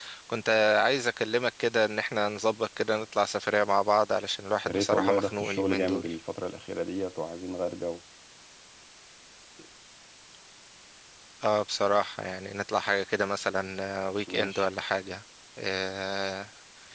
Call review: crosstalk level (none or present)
present